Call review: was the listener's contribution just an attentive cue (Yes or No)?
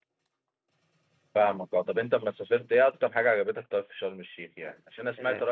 Yes